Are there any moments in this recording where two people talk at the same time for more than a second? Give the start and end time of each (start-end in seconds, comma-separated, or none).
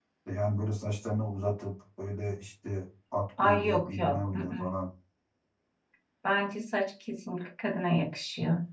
3.4-4.7